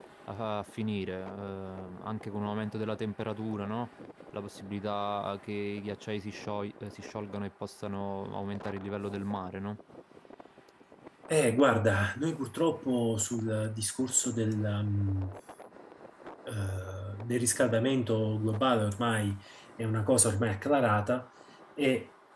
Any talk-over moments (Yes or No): No